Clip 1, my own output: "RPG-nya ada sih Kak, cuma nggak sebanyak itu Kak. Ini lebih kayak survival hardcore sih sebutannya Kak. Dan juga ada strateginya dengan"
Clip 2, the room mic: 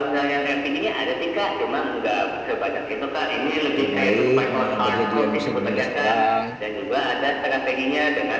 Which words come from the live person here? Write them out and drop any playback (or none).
terbaik, mau yang jadi yang bisa menindas orang,